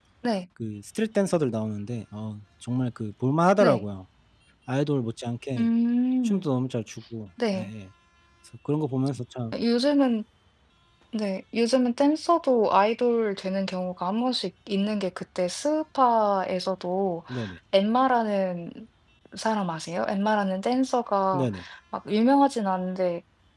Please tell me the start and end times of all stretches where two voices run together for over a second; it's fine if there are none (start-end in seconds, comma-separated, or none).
none